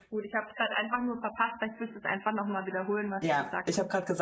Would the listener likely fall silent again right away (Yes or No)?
No